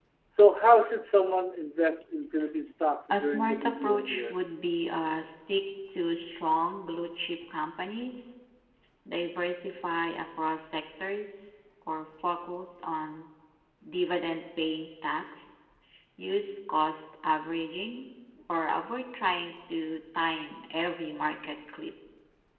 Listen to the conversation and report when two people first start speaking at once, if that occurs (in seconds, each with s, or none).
3.1 s